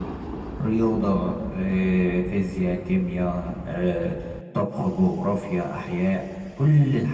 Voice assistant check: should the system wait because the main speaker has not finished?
No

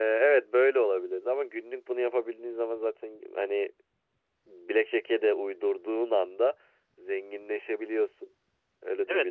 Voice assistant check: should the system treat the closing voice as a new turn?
Yes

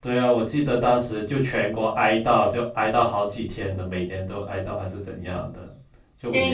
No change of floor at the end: No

